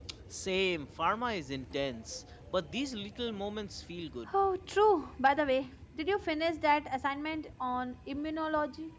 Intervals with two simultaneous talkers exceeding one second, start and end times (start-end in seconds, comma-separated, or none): none